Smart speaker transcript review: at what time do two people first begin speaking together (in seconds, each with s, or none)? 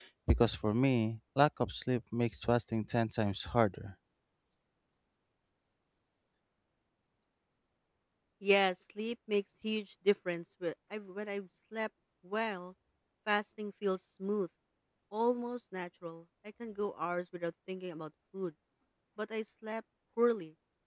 none